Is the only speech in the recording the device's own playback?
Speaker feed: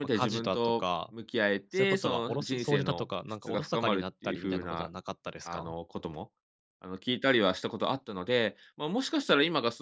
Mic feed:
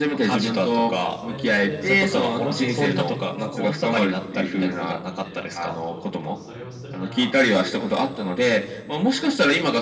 No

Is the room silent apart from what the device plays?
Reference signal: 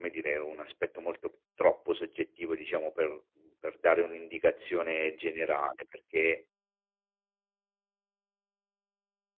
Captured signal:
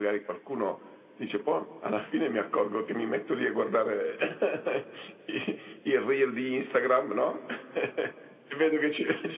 No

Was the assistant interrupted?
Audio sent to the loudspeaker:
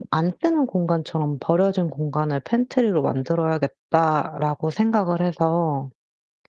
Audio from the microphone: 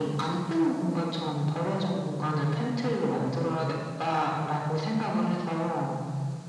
No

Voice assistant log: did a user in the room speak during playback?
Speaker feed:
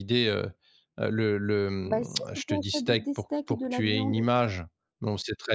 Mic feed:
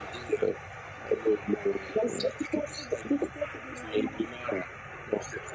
No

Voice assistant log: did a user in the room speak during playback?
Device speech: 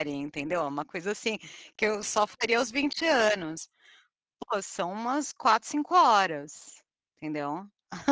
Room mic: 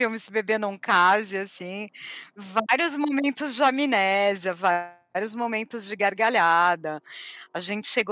Yes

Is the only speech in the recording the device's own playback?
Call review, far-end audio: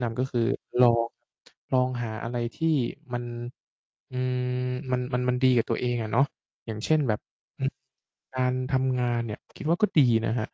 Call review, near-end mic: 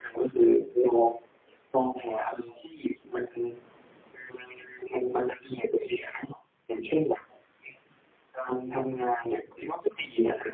Yes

